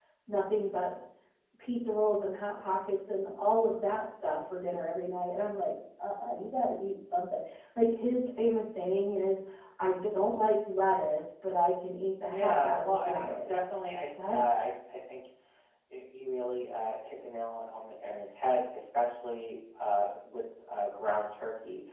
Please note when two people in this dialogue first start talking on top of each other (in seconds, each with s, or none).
12.3 s